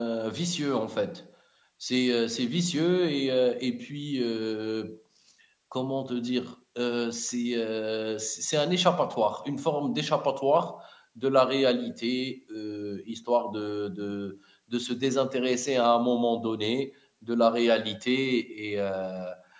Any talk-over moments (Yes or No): No